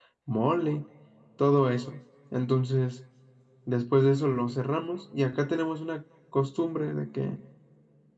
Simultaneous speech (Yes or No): No